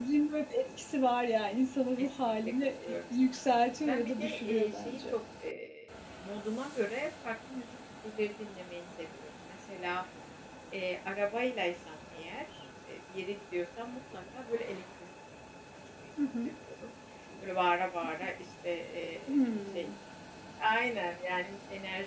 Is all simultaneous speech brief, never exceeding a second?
No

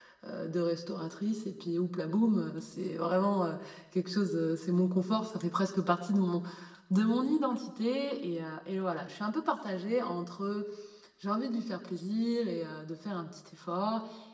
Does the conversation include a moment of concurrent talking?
No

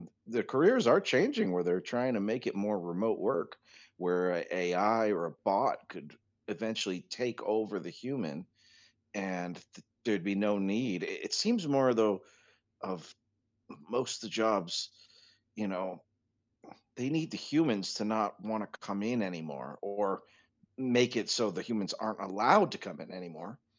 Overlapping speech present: No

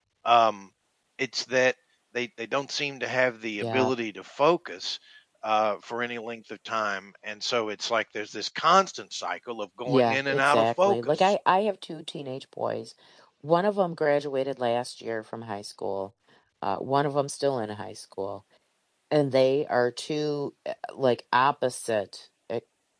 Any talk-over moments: Yes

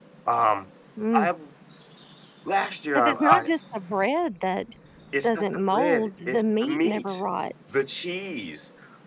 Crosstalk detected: Yes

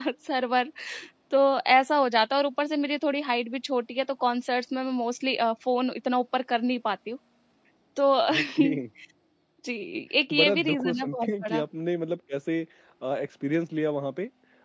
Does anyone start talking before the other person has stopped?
Yes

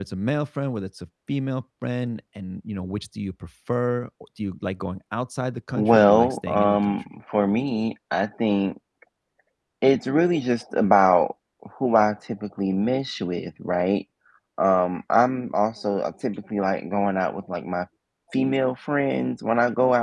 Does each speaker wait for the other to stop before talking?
No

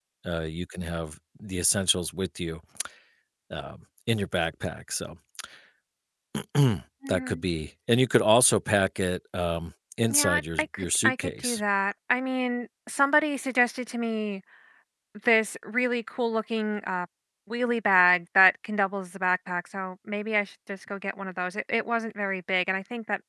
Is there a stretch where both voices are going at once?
Yes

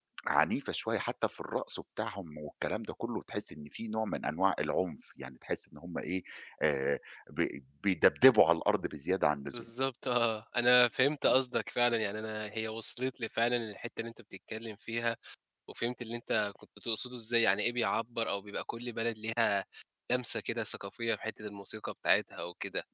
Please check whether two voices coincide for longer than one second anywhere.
No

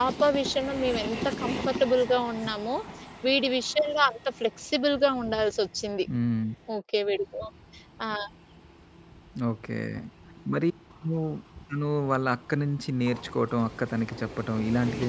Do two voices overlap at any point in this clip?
No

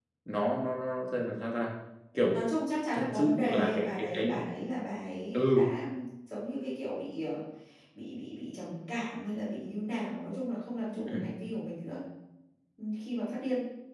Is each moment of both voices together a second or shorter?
No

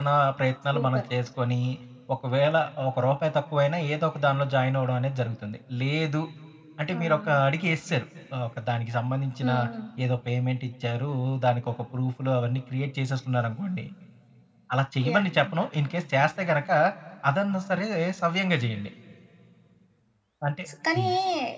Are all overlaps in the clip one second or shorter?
Yes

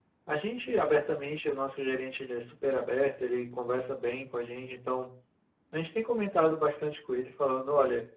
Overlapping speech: No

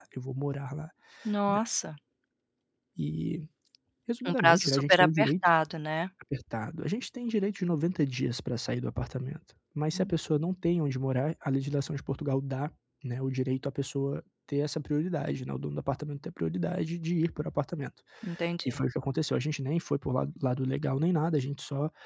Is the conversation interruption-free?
No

